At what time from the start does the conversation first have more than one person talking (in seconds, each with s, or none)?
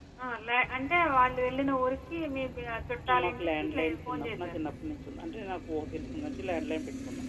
3.1 s